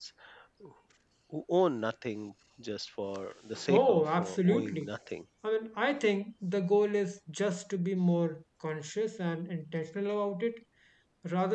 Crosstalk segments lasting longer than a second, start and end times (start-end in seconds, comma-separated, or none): 3.7-4.9